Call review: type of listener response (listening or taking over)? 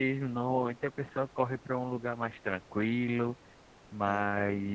listening